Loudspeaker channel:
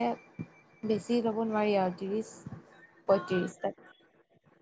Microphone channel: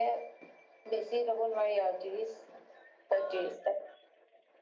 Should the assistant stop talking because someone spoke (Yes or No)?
No